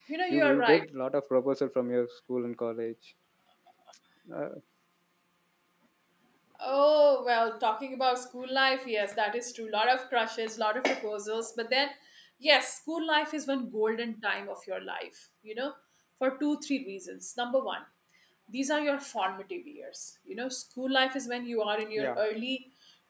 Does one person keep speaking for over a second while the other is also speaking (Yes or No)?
No